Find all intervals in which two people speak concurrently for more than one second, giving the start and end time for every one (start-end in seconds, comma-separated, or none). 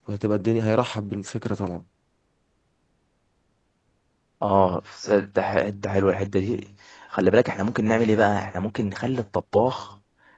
none